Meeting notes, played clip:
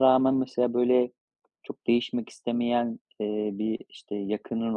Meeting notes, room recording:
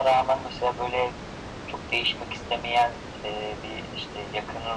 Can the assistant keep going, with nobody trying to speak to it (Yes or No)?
Yes